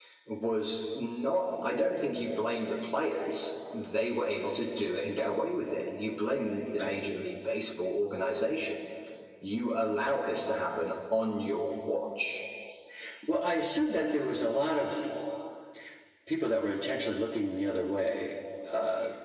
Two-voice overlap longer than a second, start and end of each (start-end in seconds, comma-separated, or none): none